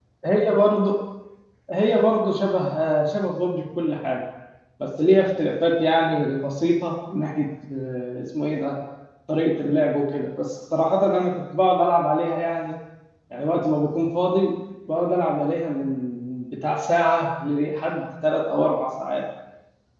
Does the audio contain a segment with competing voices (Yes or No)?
No